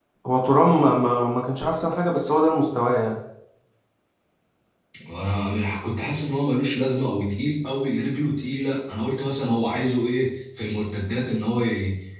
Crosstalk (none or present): none